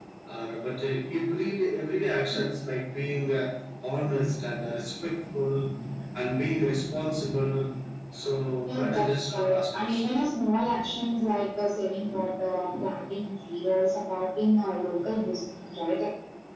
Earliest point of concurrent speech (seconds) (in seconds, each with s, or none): 8.7 s